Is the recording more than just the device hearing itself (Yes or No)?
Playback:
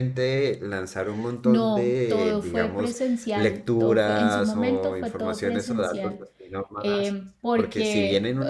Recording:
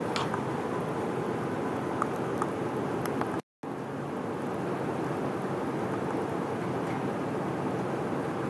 No